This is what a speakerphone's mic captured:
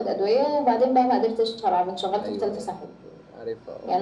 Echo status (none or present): present